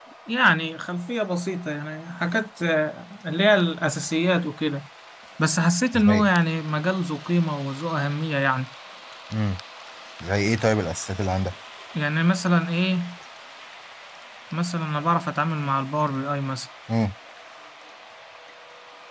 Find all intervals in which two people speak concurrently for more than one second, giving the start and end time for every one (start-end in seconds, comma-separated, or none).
none